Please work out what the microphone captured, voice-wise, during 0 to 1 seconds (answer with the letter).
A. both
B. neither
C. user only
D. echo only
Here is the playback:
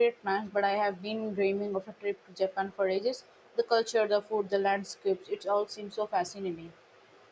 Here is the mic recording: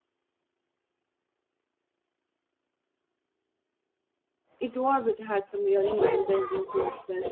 B